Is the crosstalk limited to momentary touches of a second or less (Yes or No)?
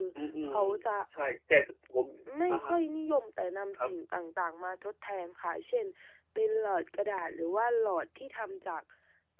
Yes